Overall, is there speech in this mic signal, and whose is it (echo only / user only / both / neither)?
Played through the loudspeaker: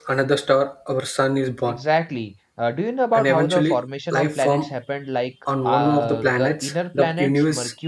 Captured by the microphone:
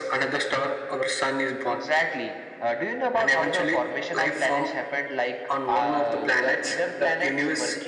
echo only